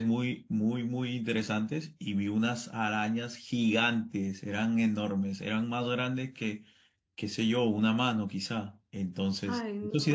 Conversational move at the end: taking over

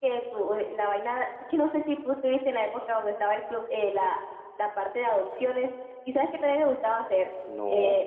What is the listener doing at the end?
listening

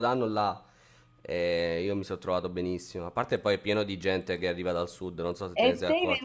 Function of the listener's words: taking over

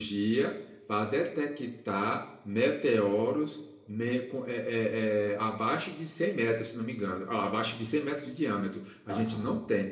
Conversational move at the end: listening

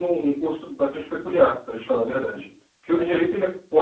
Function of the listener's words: listening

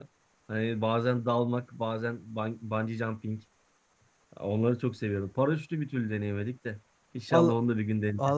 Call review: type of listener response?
taking over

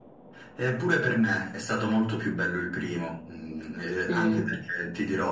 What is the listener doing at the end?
listening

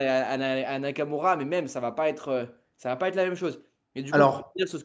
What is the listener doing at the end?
listening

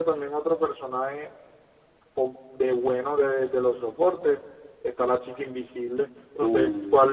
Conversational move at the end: listening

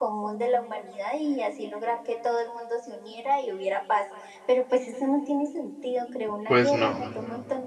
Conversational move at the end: listening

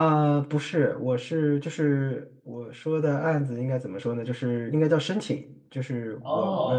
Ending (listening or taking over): listening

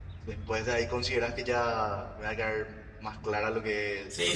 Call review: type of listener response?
taking over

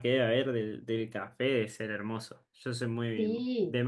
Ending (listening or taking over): taking over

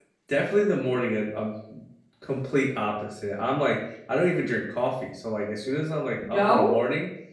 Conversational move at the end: listening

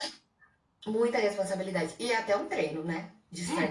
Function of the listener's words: listening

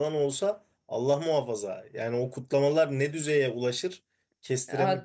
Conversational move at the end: taking over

